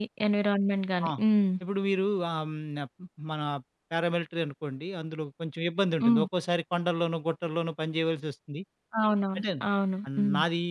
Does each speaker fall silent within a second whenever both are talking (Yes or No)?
Yes